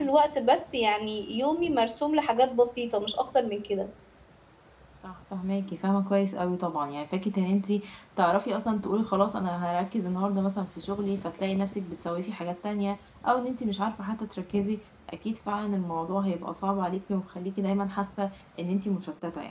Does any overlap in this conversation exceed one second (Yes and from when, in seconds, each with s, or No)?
No